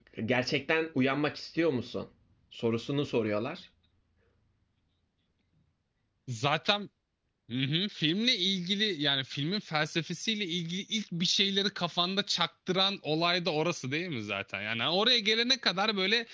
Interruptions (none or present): none